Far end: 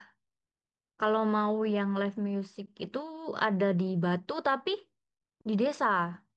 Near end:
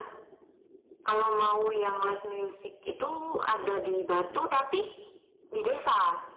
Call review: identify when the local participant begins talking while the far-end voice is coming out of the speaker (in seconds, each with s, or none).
4.2 s